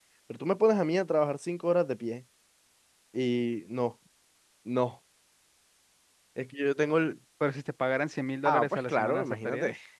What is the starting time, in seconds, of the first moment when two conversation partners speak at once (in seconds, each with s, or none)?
8.4 s